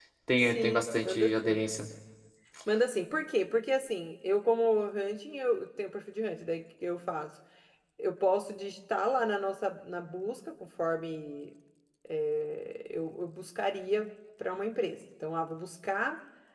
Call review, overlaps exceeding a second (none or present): present